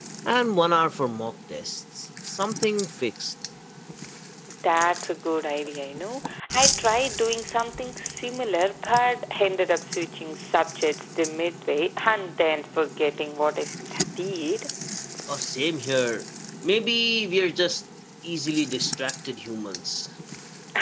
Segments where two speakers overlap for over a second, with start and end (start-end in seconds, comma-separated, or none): none